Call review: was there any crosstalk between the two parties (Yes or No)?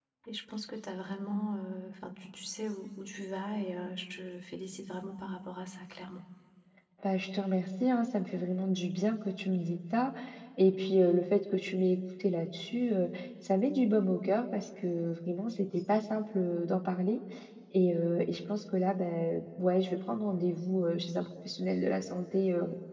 No